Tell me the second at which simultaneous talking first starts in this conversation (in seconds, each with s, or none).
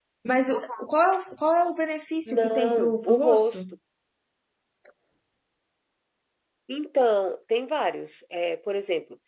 2.2 s